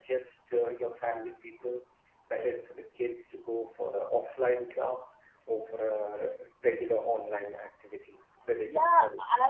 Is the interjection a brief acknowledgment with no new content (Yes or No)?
No